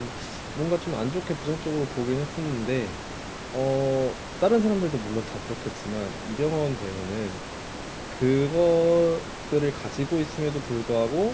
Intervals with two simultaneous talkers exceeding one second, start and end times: none

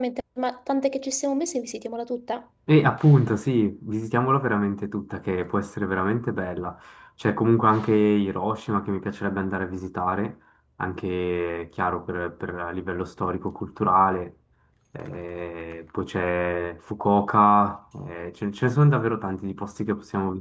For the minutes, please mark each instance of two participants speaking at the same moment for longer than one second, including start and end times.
none

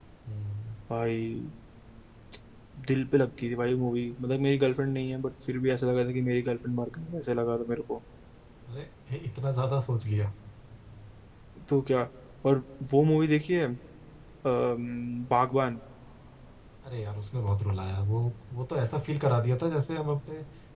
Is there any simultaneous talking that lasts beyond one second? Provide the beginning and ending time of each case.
none

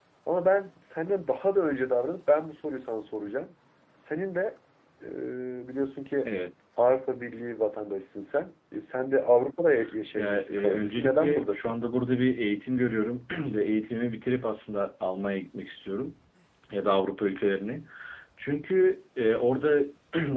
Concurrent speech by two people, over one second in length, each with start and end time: 10.2-11.8

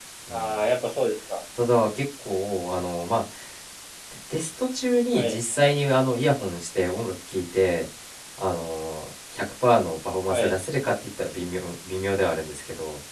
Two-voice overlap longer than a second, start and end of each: none

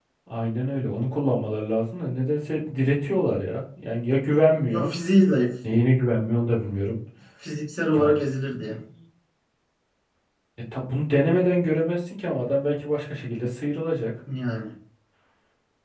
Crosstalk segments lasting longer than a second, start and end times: none

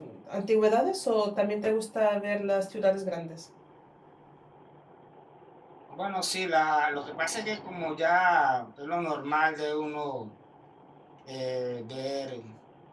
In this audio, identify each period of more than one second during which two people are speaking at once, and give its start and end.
none

